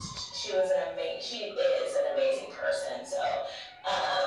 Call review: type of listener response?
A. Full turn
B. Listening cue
B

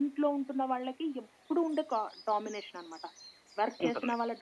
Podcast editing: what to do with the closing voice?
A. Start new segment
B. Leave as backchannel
B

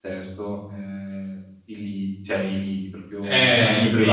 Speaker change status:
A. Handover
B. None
A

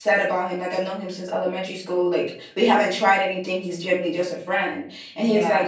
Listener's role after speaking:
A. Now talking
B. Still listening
B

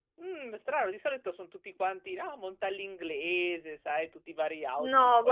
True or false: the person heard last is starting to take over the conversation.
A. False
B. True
B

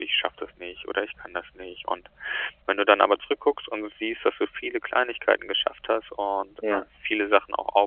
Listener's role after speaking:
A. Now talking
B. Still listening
B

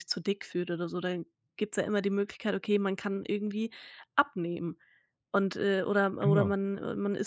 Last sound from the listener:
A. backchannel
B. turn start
A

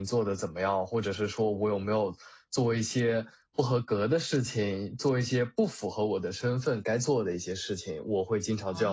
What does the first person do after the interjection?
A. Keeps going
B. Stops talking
B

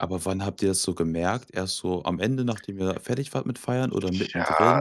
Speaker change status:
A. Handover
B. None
A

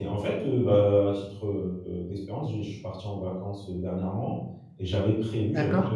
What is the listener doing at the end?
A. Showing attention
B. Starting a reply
A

